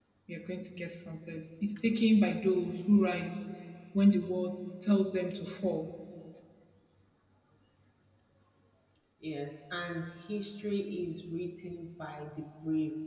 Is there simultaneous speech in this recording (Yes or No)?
No